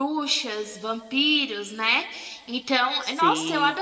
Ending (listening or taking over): listening